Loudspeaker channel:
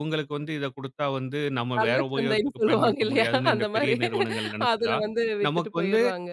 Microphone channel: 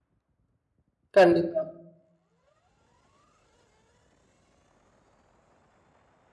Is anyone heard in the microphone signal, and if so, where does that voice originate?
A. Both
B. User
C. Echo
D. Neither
B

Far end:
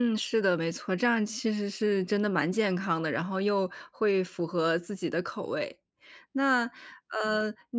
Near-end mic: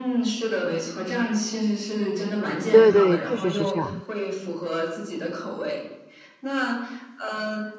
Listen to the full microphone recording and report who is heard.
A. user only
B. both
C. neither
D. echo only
B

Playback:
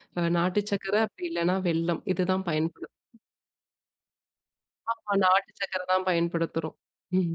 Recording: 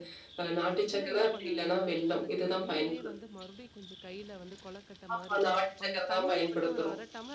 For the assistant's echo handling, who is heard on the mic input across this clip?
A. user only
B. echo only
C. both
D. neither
C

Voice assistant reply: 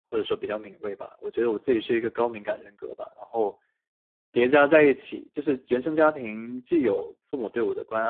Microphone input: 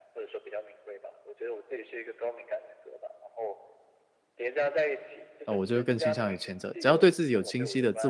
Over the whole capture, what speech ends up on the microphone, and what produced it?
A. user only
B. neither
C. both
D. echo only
C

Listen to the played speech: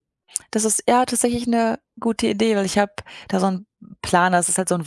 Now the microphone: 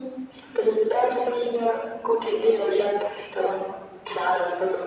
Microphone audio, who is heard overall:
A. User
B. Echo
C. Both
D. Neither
B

